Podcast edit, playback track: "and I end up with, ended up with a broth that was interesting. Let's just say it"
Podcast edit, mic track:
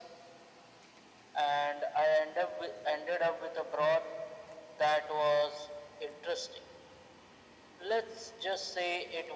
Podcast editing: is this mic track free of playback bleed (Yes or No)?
No